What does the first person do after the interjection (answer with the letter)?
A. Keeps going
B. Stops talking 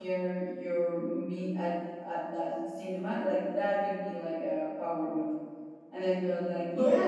A